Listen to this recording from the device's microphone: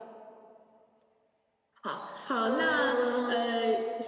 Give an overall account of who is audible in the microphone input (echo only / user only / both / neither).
echo only